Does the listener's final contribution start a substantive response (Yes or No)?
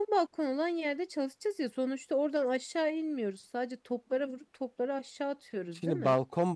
Yes